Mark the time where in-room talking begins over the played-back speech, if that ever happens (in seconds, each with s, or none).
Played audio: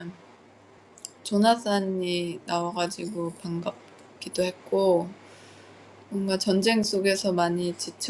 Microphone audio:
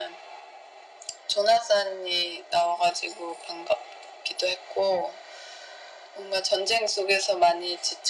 none